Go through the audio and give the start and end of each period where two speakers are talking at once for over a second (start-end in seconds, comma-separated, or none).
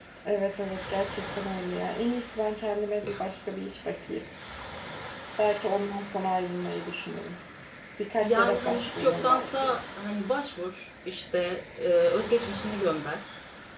8.2-9.8